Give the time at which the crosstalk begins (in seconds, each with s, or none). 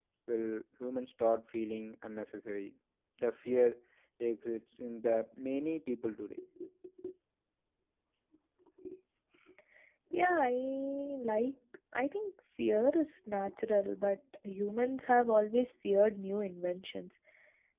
none